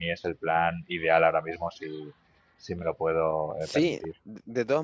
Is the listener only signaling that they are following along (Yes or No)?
No